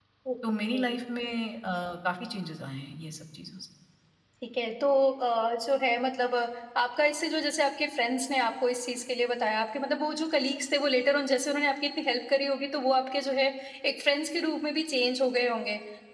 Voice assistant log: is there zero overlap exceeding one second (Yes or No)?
Yes